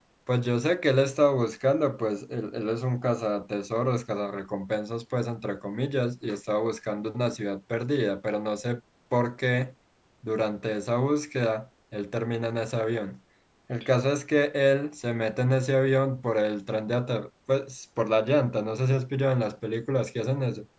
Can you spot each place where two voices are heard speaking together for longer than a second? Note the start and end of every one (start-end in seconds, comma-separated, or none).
none